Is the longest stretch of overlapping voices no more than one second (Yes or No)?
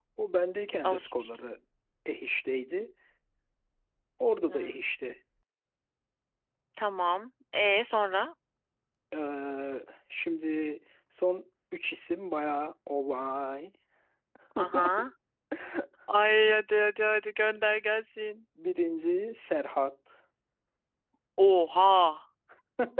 Yes